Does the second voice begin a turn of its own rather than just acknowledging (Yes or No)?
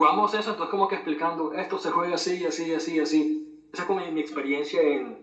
No